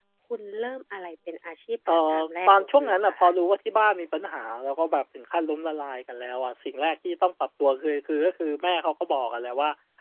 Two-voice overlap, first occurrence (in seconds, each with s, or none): 1.9 s